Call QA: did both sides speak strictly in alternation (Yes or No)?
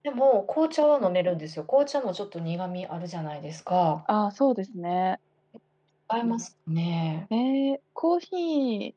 Yes